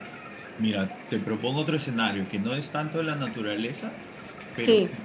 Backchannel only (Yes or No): Yes